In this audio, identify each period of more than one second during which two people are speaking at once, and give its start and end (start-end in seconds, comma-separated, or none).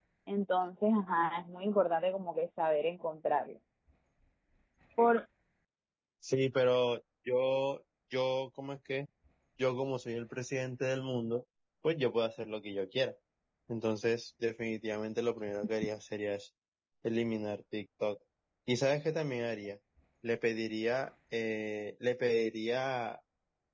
none